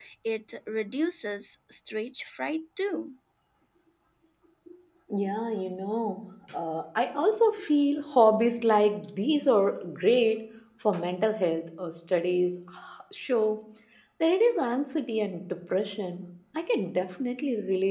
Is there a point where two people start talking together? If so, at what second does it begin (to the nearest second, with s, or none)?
none